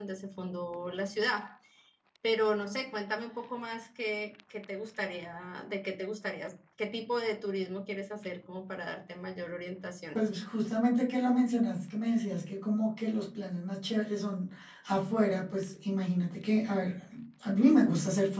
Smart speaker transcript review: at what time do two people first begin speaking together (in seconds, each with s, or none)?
none